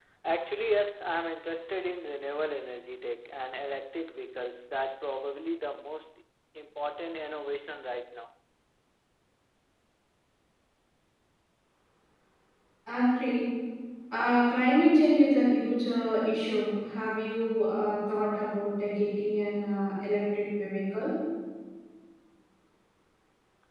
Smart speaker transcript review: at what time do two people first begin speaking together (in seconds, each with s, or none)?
none